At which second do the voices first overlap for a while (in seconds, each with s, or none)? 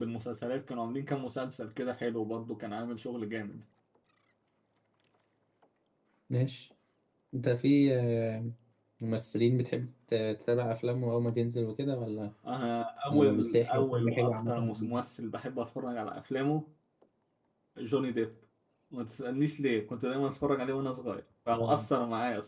13.1 s